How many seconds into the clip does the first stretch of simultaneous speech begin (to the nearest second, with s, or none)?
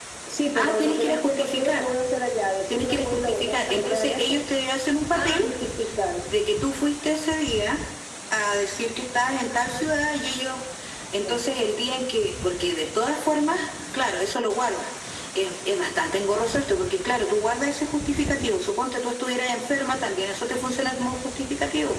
1 s